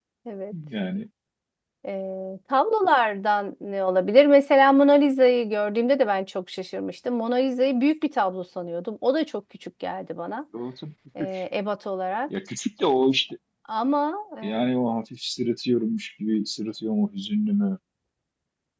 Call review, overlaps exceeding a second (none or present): none